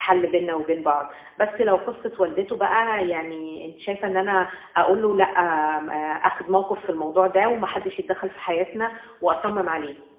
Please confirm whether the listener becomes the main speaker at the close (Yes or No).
Yes